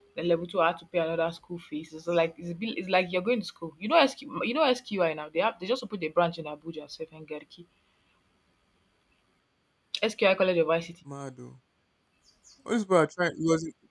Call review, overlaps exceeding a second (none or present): none